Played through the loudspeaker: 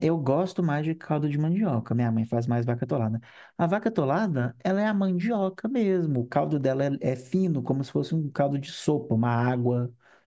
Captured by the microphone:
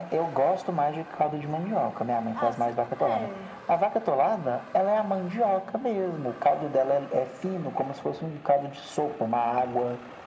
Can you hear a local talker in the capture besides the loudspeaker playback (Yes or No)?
Yes